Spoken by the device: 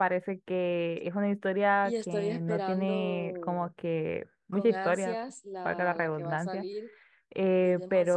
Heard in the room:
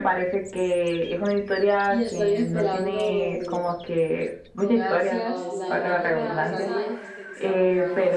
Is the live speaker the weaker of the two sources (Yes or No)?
Yes